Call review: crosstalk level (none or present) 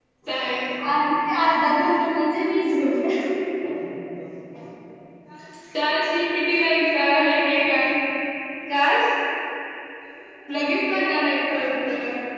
none